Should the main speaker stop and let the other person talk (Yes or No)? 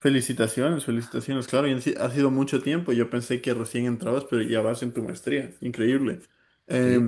No